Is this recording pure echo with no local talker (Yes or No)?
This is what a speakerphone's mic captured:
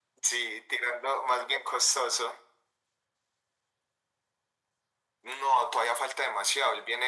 Yes